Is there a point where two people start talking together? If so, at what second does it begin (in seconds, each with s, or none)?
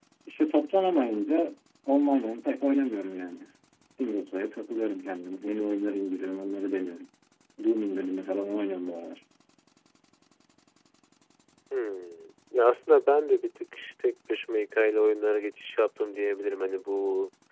none